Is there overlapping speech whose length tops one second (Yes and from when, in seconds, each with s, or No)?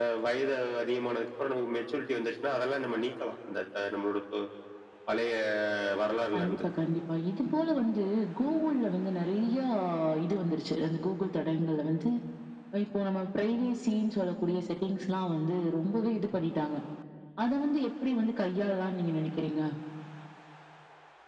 No